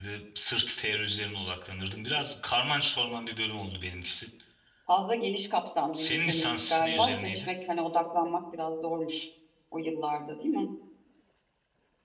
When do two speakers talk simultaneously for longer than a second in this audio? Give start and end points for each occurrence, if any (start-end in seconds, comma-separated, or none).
5.9-7.5